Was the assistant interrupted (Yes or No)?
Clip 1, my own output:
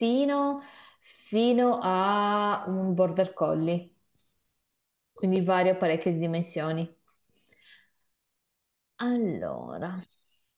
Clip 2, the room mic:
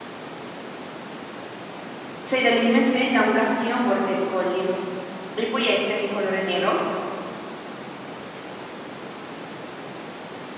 Yes